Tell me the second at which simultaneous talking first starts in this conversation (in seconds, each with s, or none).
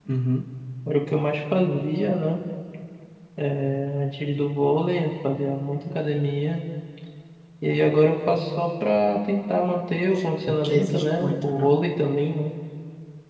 10.5 s